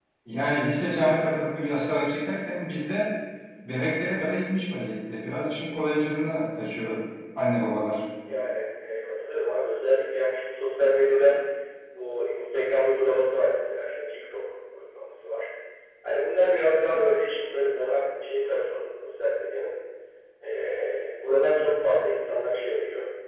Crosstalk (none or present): none